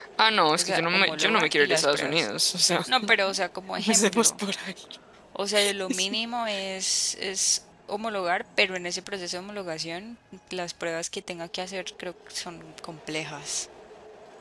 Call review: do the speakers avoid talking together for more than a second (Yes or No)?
No